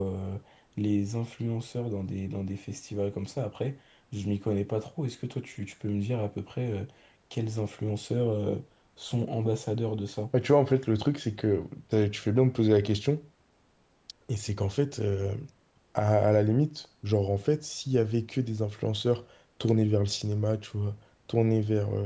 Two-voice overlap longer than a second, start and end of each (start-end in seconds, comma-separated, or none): none